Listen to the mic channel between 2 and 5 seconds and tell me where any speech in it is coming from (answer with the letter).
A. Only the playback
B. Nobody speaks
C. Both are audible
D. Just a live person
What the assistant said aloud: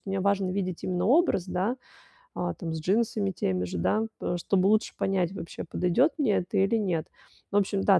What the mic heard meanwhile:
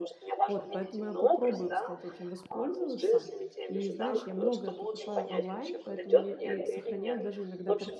C